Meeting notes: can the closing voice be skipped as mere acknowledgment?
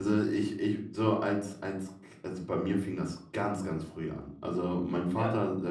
Yes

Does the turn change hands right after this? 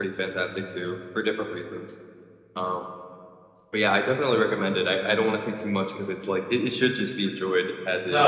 Yes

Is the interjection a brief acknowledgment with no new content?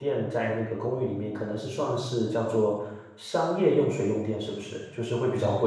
No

